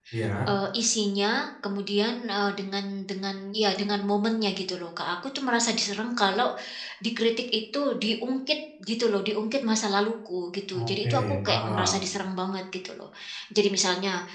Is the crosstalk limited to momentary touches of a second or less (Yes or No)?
No